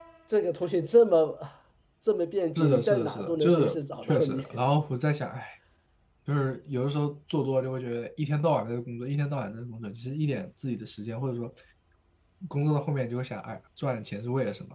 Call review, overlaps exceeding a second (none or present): present